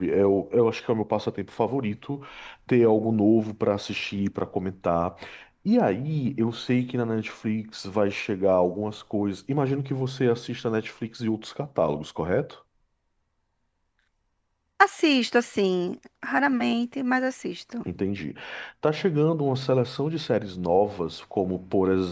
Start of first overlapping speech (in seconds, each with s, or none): none